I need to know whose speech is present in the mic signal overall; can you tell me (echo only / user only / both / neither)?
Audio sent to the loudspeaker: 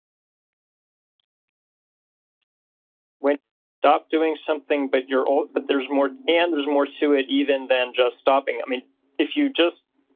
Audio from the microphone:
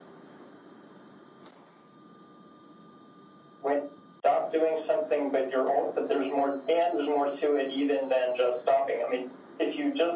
echo only